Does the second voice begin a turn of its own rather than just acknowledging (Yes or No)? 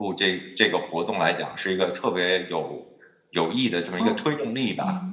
Yes